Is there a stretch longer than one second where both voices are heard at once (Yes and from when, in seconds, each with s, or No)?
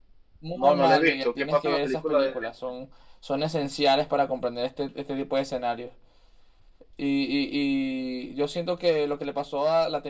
Yes, from 0.6 s